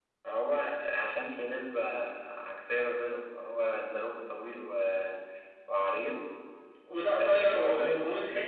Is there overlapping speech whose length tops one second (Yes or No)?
Yes